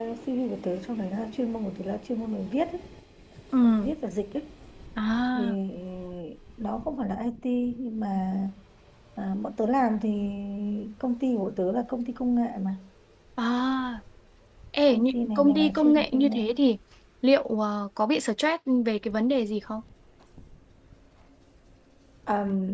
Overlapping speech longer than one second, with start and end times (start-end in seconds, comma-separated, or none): 14.9-16.4